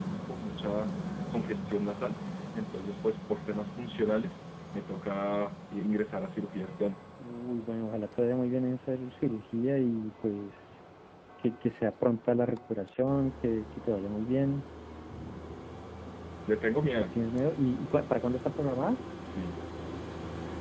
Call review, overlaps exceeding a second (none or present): none